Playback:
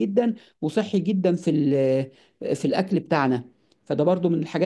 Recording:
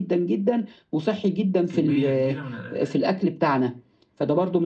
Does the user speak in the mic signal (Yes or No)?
Yes